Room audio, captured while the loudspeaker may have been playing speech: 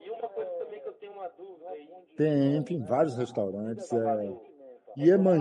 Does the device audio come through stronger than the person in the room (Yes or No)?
No